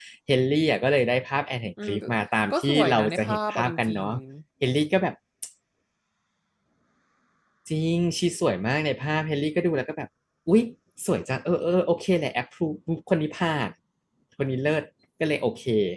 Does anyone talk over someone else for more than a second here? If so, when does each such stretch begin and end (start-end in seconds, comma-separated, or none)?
2.5-4.1